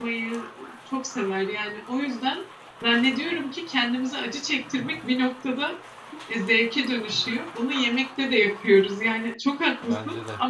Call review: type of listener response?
listening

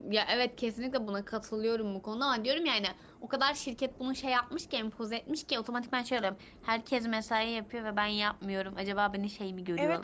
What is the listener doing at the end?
taking over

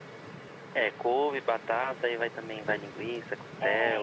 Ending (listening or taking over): taking over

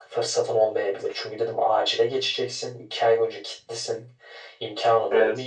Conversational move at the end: listening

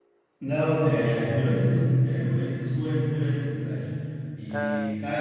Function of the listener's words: listening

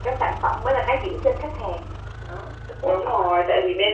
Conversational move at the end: taking over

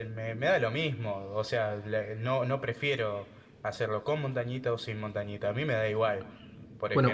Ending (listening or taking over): taking over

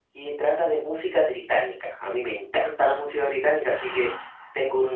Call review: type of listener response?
listening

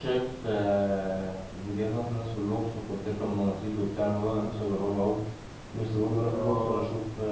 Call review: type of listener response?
listening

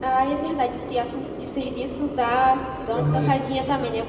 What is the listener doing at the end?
listening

